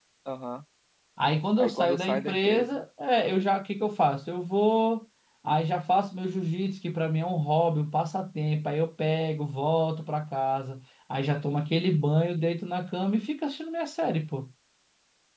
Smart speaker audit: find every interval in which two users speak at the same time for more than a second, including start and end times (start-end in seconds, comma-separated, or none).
1.6-2.8